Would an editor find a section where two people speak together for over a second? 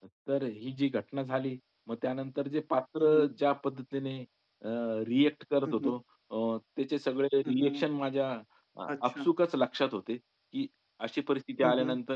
No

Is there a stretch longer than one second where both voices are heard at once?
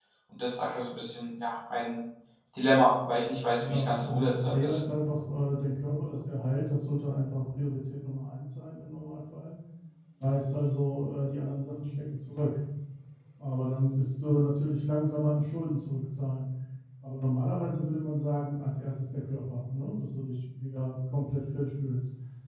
Yes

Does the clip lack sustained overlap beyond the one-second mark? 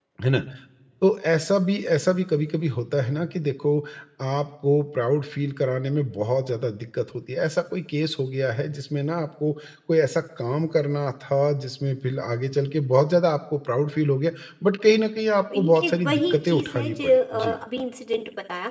No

